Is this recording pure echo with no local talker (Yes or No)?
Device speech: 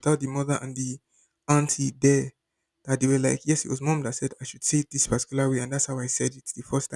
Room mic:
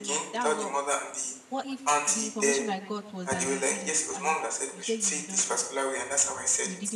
No